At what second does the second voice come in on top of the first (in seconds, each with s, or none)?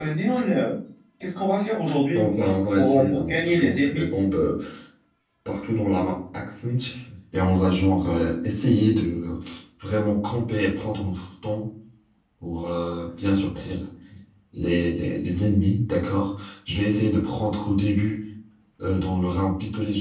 2.8 s